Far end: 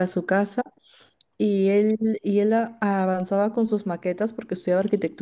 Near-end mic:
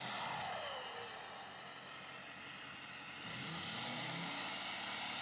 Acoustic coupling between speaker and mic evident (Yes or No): No